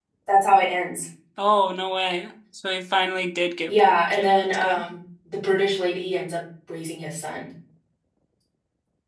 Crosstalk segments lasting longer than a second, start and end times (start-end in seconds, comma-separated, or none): 3.7-4.9